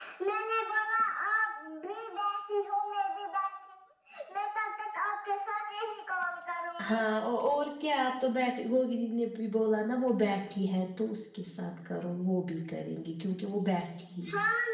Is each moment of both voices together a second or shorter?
Yes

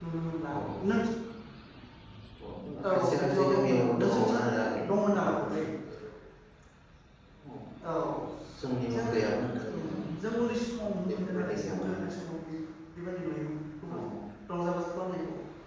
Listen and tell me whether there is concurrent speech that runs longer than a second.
Yes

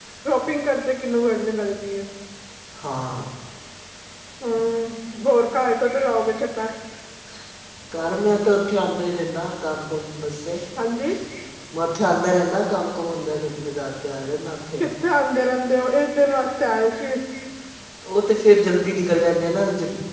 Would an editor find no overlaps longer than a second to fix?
Yes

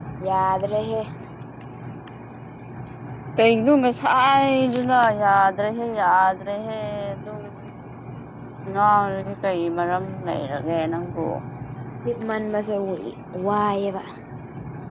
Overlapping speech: No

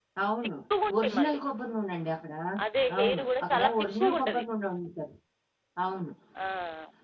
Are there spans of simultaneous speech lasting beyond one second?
Yes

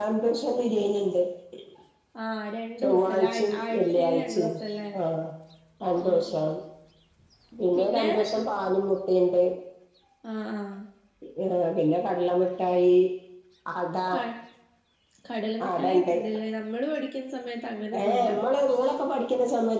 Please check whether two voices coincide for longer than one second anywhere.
Yes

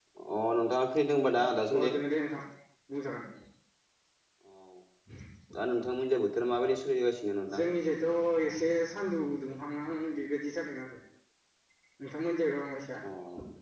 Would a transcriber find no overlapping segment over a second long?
Yes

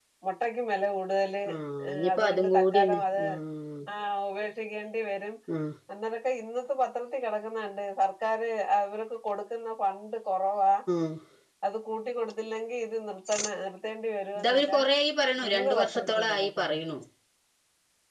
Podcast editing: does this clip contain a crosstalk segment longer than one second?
Yes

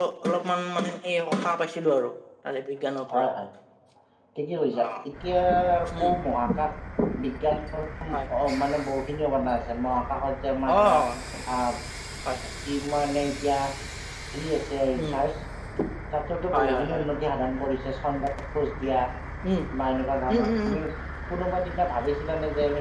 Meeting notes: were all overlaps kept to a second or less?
Yes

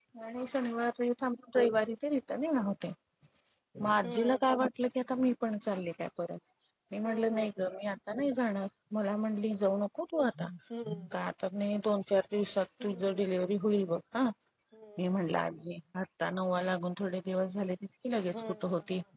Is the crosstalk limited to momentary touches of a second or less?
Yes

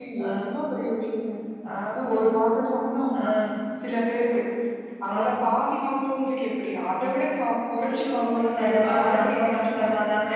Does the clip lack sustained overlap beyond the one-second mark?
No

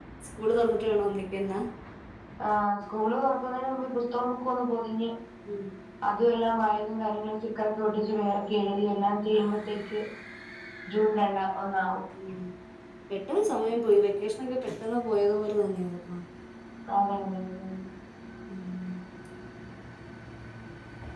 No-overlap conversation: Yes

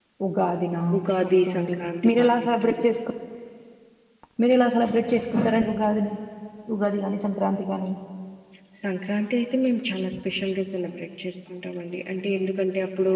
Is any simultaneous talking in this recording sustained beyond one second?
Yes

